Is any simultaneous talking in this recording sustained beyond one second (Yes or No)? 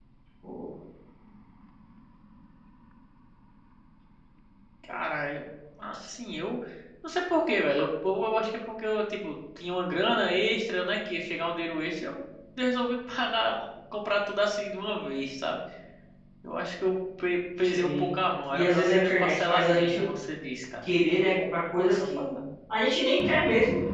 Yes